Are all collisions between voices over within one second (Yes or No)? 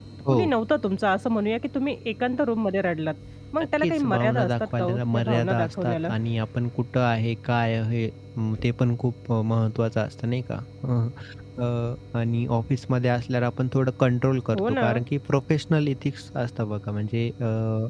No